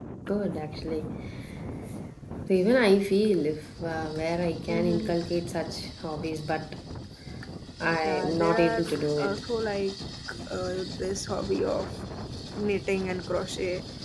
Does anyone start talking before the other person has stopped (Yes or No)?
Yes